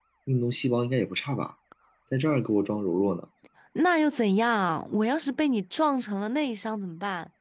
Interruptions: none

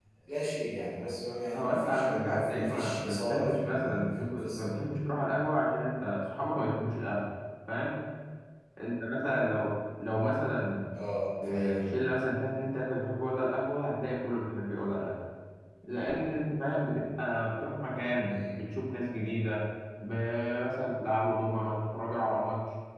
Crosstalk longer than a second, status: present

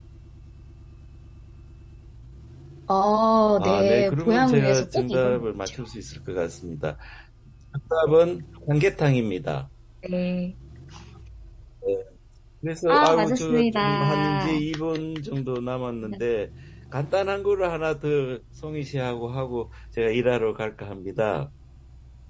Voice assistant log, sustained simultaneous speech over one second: present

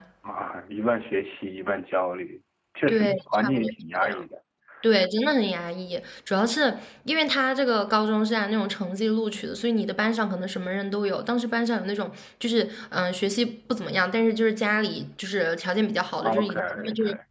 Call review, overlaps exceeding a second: present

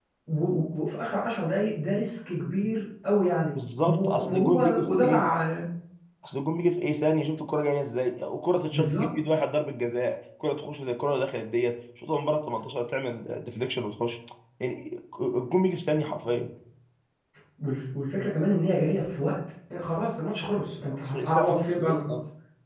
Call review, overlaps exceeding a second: present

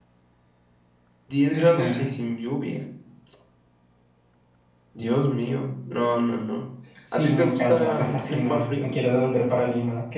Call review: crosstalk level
present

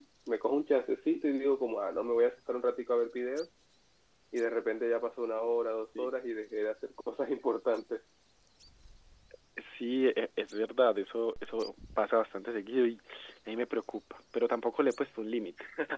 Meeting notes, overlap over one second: none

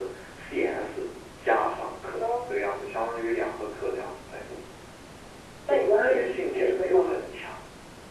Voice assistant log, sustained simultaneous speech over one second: present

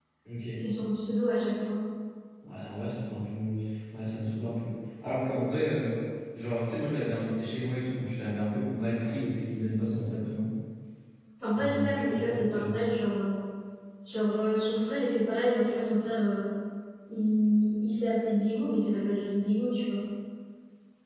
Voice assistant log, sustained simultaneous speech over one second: present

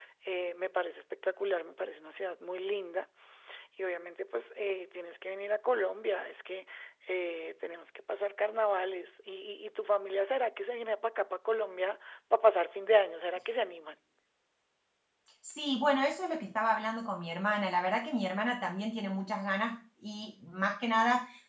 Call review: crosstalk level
none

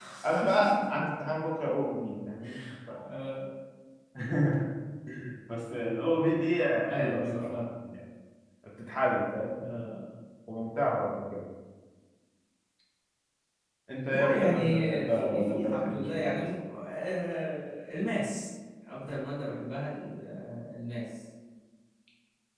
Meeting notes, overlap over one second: present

